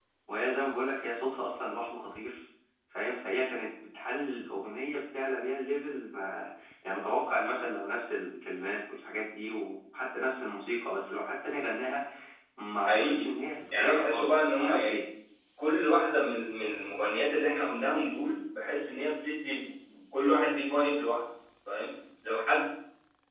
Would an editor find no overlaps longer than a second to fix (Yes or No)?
No